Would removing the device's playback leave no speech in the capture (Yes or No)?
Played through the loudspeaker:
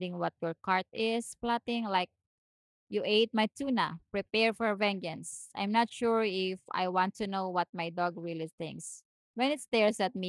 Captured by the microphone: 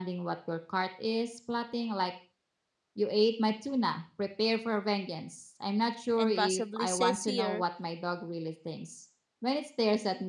No